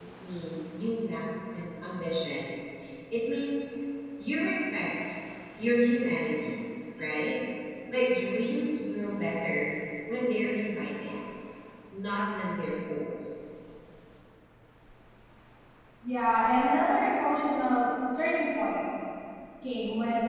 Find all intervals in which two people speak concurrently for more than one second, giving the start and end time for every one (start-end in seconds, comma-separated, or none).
none